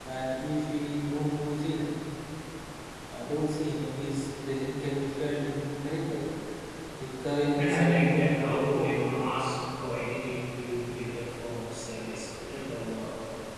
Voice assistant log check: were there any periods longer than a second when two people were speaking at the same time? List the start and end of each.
7.6-9.0

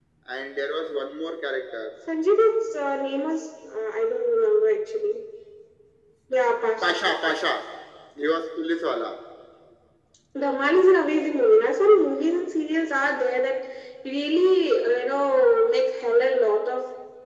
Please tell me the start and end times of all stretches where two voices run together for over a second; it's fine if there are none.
none

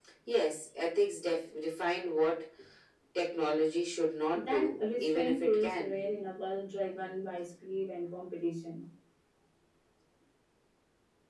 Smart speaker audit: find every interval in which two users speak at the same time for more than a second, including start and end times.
4.3-5.9

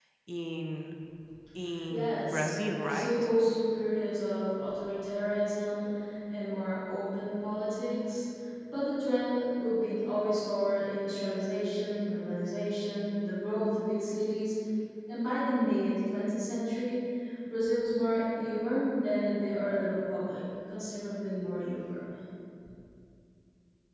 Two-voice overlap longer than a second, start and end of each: 1.9-3.1

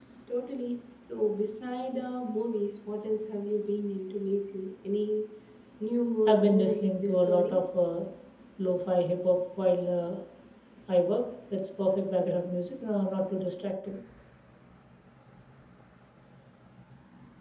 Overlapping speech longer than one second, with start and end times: 6.3-7.6

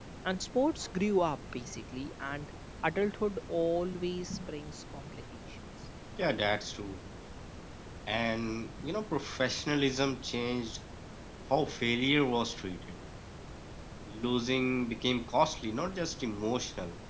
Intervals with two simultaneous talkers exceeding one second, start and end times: none

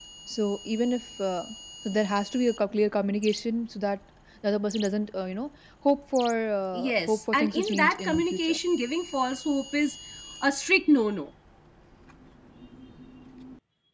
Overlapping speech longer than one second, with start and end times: 6.7-8.6

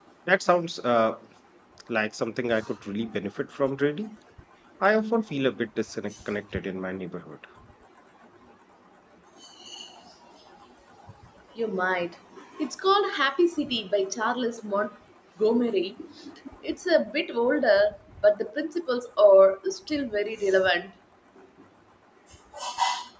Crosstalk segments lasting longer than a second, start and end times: none

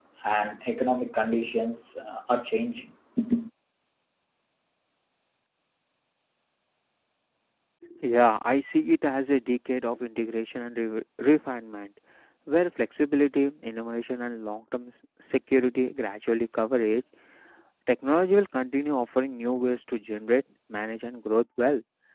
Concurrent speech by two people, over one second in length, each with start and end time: none

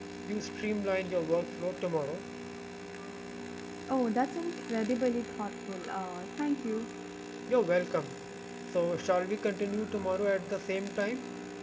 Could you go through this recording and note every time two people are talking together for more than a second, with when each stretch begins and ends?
none

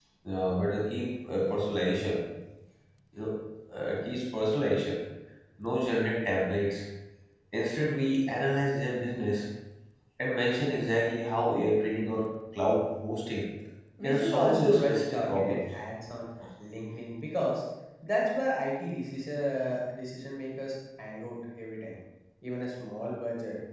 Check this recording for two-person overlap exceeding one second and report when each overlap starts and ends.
14.0-15.6

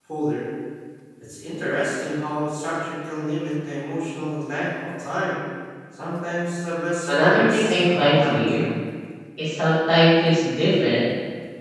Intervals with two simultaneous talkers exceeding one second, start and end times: 7.1-8.7

